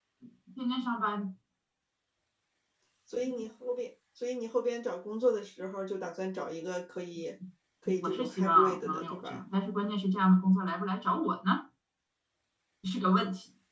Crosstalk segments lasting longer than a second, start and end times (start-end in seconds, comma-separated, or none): 8.0-9.4